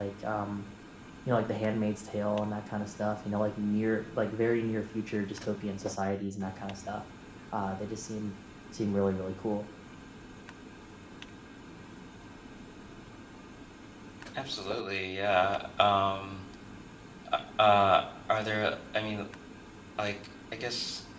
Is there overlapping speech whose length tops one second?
No

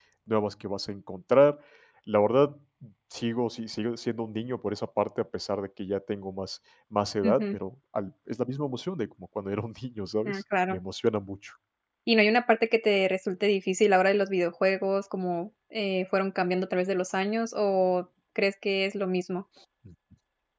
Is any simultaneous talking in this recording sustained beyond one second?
No

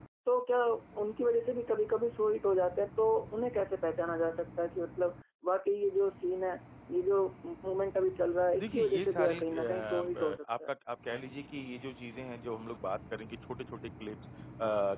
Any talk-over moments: Yes, from 8.6 s

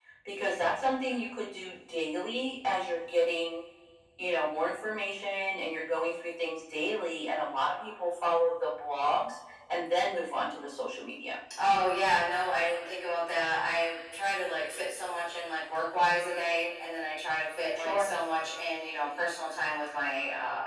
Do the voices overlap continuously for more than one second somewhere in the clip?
No

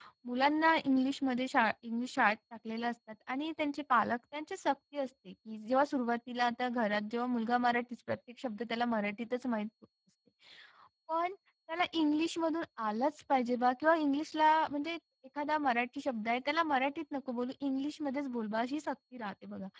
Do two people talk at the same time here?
No

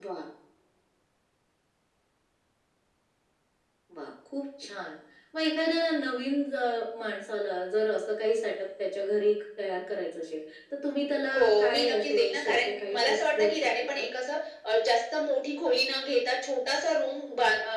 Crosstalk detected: Yes, from 11.3 s

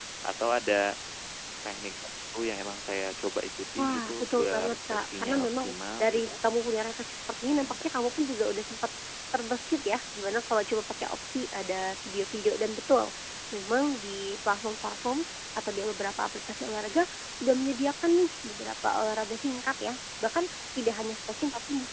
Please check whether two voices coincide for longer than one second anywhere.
Yes, from 3.8 s

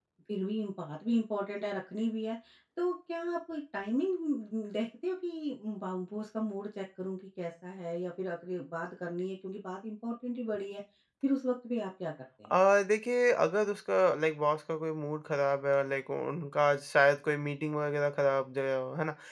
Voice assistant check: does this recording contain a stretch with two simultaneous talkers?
No

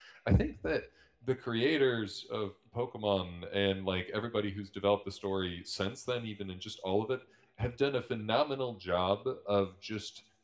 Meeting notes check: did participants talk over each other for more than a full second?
No

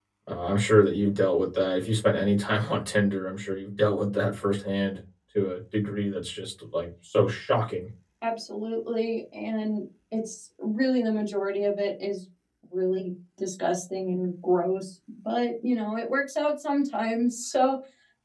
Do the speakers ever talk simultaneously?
No

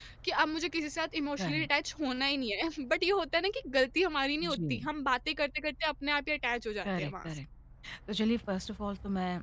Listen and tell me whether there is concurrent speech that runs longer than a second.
No

